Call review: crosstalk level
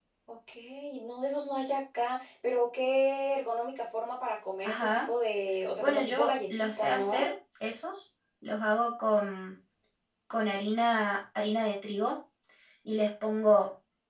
present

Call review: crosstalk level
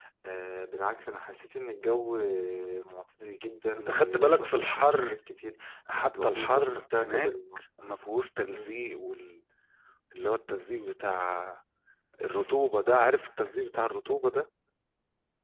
present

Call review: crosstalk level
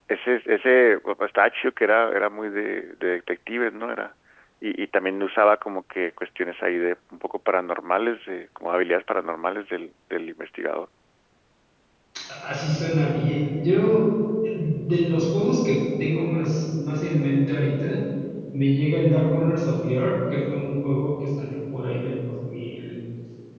none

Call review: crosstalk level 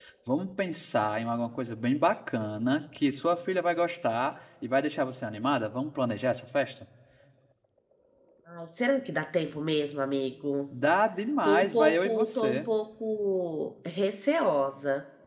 present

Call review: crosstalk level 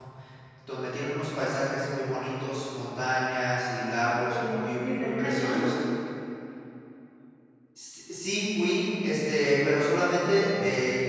present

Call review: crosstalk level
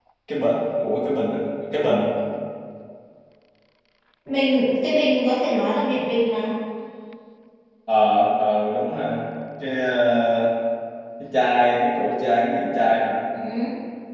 none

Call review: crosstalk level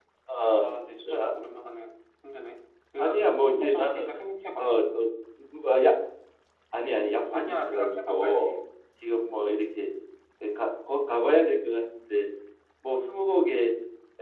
present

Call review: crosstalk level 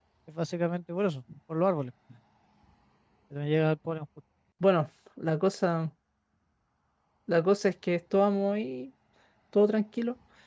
none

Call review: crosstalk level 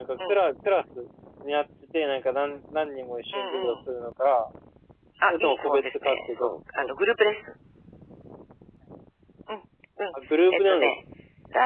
present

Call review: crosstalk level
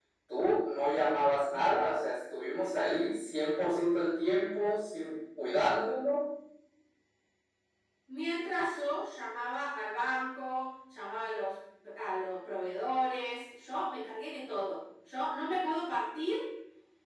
none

